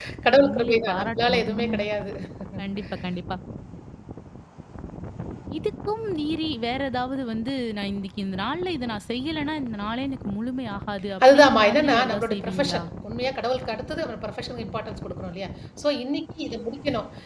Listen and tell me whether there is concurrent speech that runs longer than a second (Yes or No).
Yes